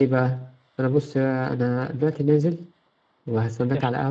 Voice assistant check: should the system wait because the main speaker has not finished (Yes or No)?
Yes